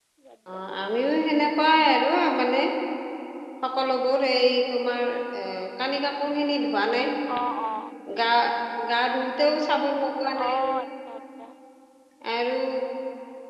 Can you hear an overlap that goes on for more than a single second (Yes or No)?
No